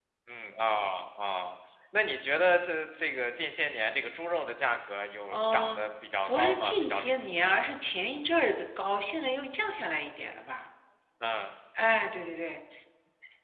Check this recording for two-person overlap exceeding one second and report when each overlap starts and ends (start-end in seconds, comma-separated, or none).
6.3-7.6